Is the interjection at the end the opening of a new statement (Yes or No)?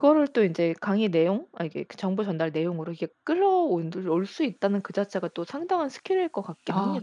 Yes